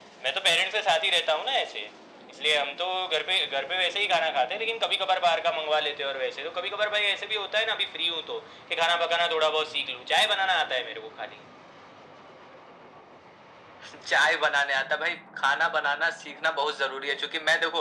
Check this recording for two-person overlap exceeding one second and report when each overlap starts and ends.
none

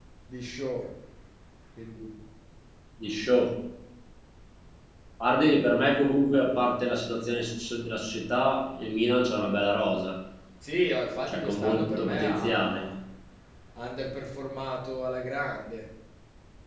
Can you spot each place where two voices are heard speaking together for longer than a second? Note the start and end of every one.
11.3-12.8

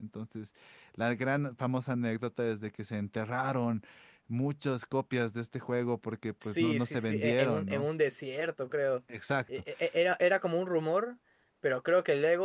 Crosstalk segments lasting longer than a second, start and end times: 6.4-7.9

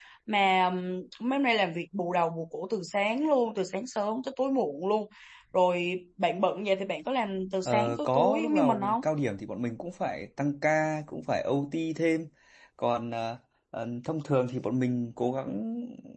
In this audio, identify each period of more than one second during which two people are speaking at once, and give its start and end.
7.6-9.0

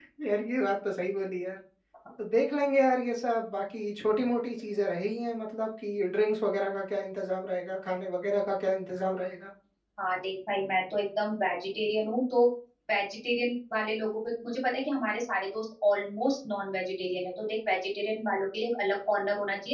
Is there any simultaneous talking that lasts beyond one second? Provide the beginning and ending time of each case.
none

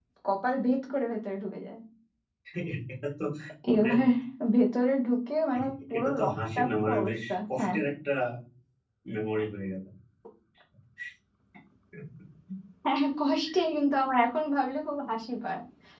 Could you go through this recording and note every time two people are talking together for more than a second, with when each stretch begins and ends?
6.0-7.8

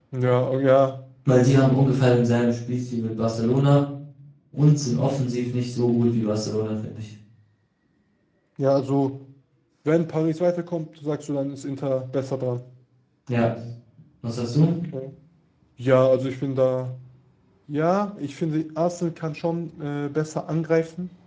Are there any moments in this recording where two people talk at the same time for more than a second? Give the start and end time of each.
none

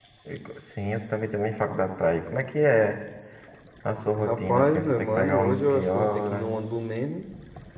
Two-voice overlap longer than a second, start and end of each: 4.2-6.4

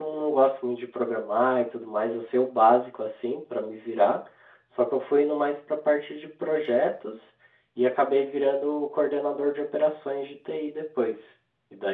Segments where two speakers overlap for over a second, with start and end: none

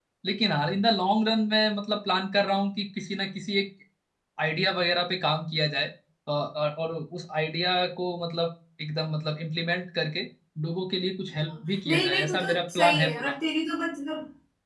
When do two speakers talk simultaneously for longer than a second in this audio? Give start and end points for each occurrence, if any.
11.5-13.3

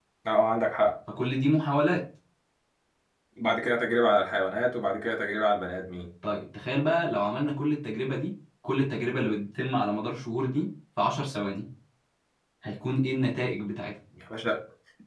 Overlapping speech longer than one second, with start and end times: none

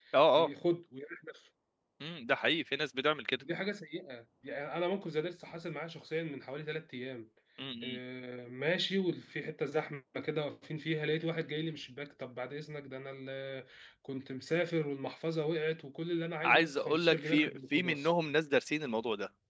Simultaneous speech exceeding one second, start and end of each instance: 16.4-18.1

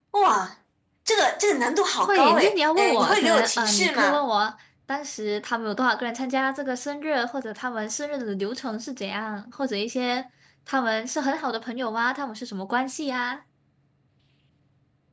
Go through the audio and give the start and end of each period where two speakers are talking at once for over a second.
2.0-4.2

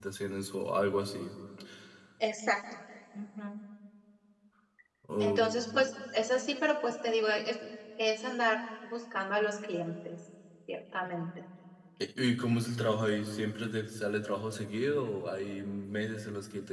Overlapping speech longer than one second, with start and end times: none

